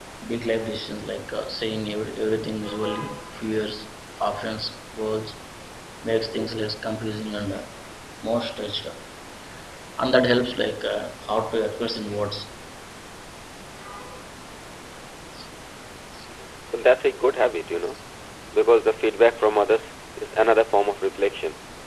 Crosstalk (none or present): none